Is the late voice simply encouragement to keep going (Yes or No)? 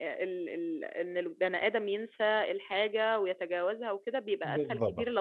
Yes